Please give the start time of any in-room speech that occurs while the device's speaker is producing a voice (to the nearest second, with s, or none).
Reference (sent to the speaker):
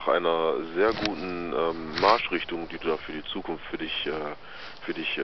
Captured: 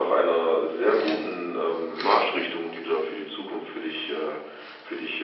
none